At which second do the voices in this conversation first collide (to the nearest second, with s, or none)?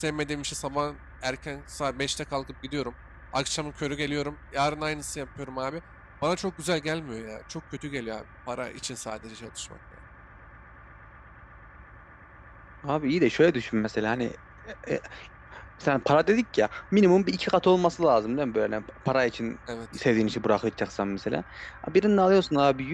none